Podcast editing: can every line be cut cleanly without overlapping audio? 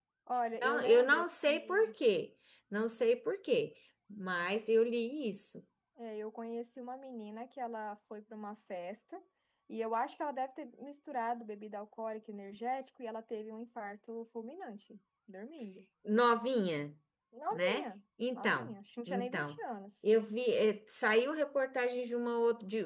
No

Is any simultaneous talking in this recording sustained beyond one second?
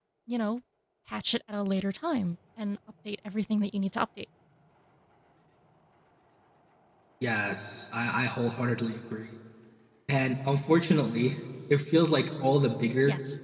No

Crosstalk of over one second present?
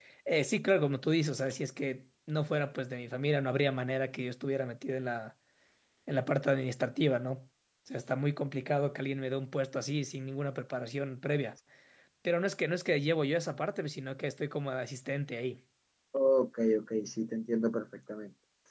No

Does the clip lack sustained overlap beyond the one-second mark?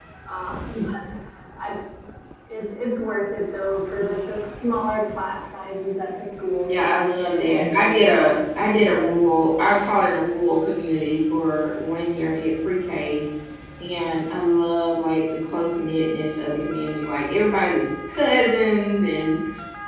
No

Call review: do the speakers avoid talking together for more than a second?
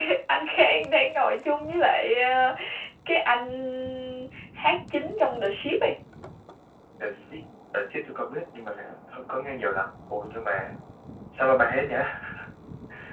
Yes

